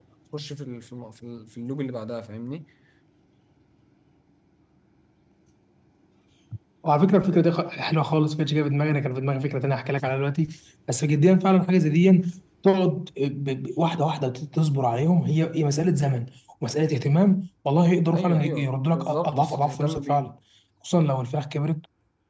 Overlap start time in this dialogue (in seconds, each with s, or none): 18.1 s